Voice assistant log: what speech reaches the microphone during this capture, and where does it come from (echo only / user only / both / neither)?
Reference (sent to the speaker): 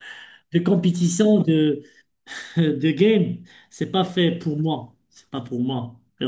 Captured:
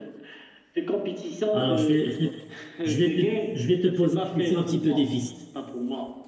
both